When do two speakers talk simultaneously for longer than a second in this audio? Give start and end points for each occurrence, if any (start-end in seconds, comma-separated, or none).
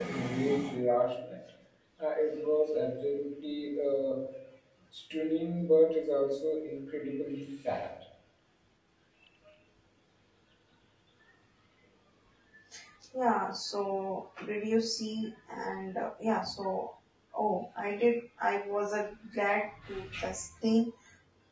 none